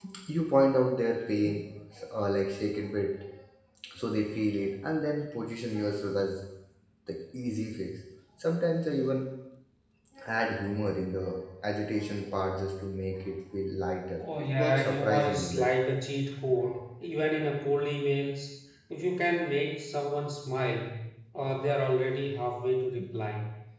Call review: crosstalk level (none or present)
present